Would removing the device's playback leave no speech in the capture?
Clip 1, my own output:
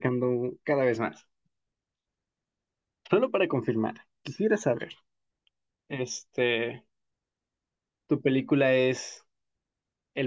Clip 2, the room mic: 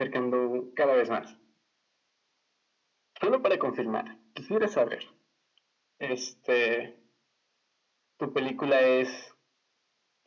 Yes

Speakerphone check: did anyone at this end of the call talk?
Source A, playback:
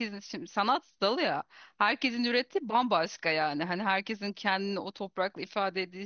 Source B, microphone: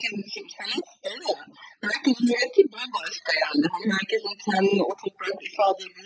No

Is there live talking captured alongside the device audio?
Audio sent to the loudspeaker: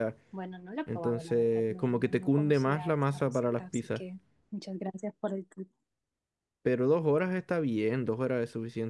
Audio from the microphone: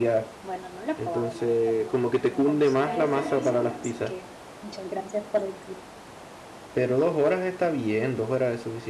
Yes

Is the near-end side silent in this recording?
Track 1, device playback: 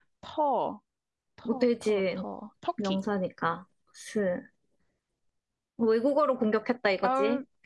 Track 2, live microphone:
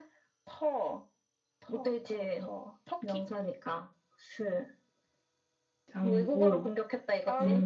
No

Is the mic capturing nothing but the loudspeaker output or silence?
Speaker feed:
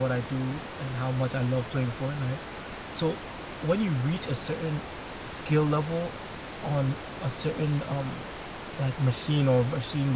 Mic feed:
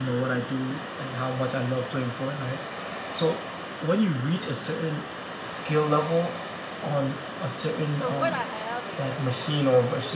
No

